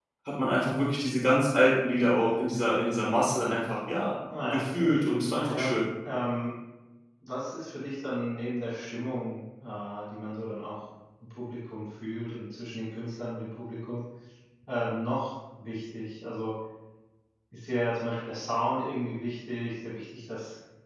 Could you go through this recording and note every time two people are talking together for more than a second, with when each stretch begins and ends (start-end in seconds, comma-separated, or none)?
4.4-5.8